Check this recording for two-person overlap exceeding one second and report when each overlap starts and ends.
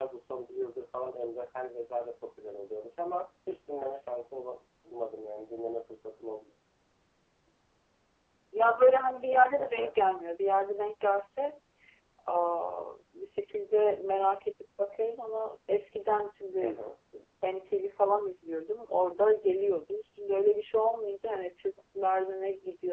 none

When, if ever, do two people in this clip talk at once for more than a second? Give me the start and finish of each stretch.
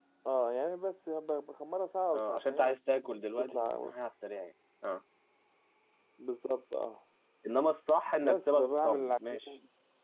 2.1-3.9, 8.2-9.5

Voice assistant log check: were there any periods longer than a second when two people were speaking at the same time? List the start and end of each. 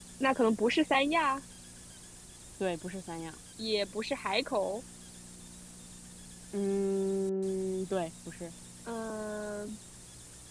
none

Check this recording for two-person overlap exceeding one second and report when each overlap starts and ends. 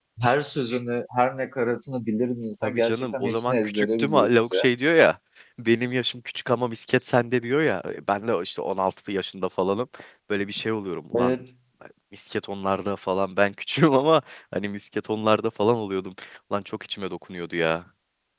2.6-4.7

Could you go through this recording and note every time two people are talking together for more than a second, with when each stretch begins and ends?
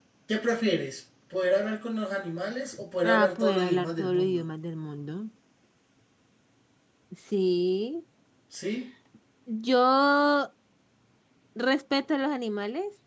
3.0-4.4

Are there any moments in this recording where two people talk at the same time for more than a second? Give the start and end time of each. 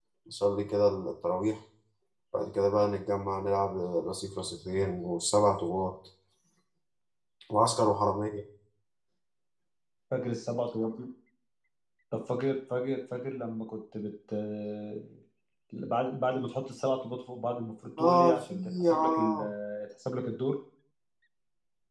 18.0-19.4

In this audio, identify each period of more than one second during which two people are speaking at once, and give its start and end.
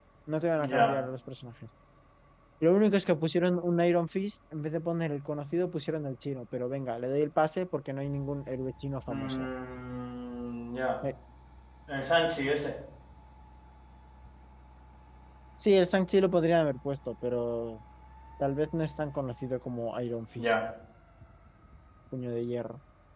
none

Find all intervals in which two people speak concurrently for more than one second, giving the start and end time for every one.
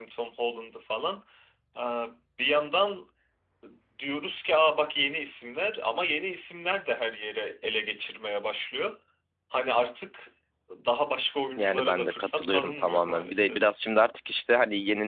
11.6-13.7

